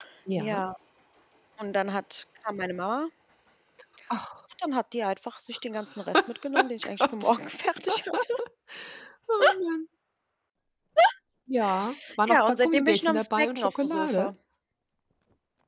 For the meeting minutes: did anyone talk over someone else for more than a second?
Yes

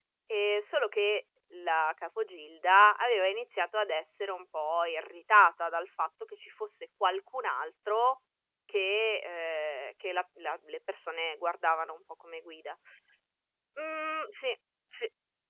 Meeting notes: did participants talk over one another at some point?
No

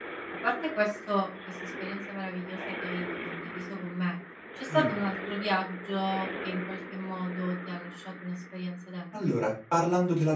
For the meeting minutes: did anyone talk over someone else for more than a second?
No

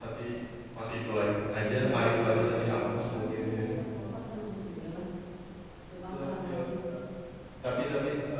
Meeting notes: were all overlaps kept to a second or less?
No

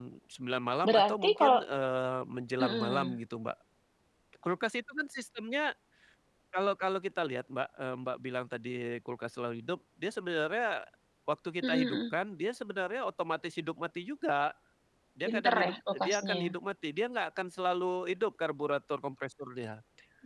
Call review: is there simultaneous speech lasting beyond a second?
Yes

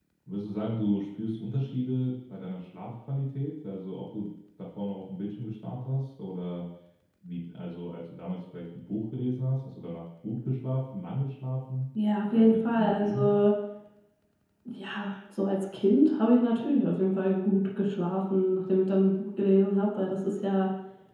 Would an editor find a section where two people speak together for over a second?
Yes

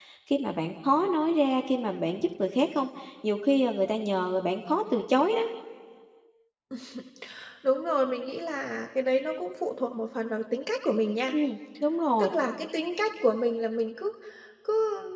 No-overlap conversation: Yes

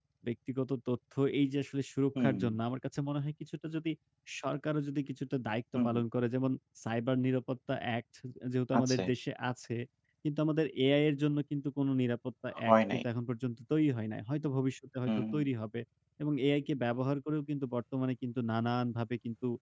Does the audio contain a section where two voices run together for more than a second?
No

